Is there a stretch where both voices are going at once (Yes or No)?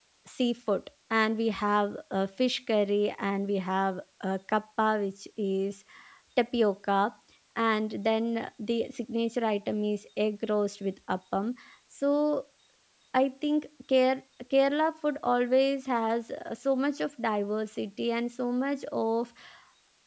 No